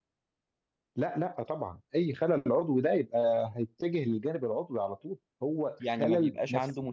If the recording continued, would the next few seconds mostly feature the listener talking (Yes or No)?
Yes